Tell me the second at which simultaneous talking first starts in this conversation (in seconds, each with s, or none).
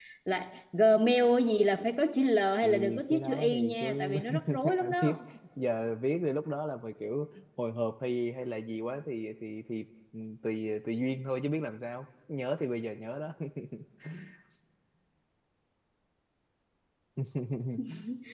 2.6 s